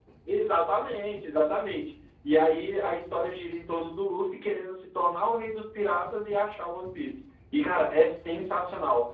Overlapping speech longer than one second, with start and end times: none

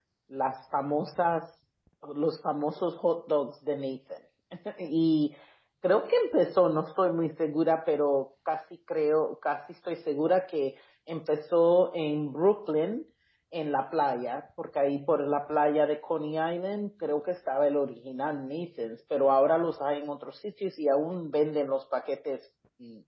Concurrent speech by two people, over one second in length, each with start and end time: none

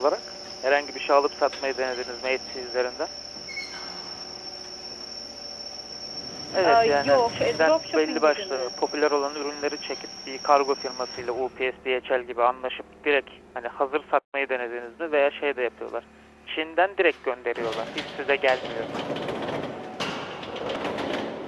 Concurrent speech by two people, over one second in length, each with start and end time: 6.7-8.7

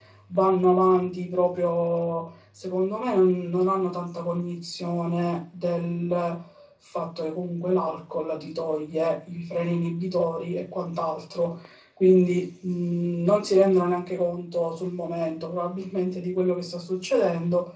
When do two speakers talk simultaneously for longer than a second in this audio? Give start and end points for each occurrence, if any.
none

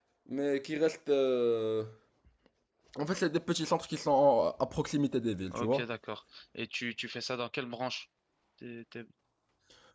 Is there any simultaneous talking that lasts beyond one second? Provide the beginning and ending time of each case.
none

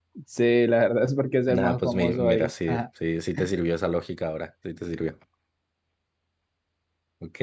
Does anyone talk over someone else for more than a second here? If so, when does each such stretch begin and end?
1.5-2.8

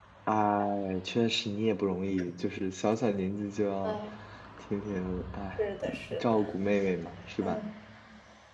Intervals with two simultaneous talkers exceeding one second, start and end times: none

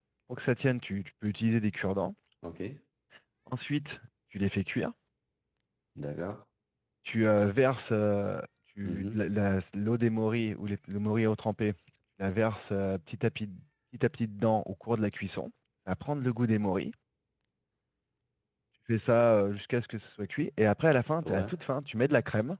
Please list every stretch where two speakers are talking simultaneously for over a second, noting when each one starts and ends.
none

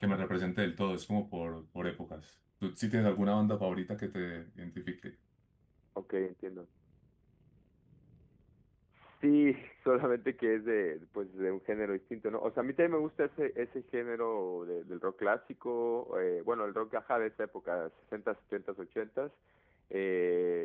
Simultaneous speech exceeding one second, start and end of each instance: none

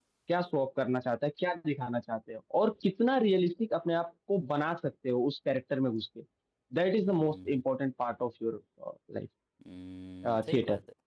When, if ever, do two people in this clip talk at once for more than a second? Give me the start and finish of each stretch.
none

